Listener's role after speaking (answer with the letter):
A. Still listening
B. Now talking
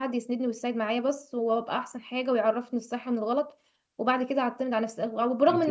A